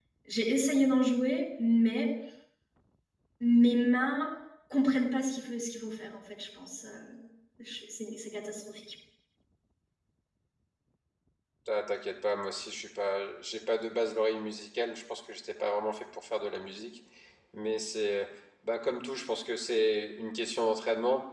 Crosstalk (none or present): none